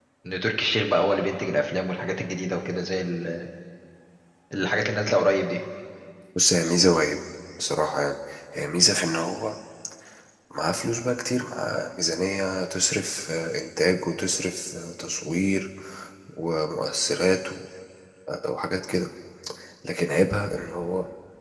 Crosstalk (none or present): none